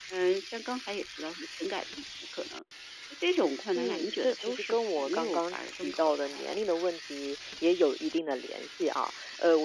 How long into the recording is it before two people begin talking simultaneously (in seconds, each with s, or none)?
3.8 s